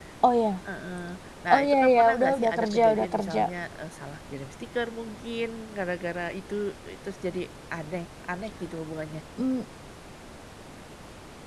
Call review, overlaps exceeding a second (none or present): present